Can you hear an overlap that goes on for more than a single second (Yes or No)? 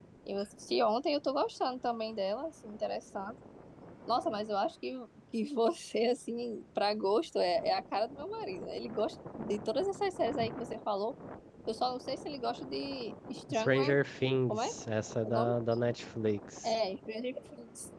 No